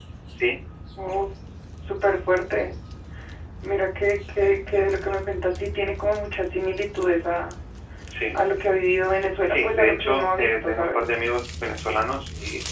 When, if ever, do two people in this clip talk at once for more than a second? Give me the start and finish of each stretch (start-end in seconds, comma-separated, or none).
9.4-11.0